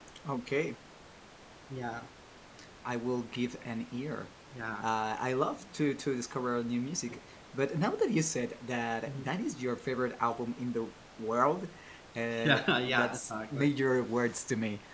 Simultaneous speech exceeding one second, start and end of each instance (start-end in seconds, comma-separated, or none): 12.4-13.7